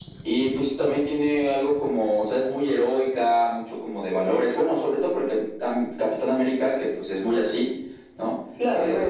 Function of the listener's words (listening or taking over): taking over